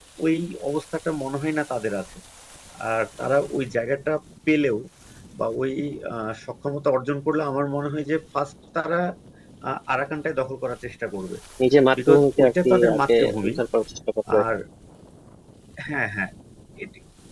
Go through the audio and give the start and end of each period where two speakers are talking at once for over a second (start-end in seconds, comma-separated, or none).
12.1-13.5